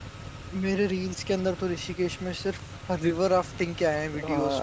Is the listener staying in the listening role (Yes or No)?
No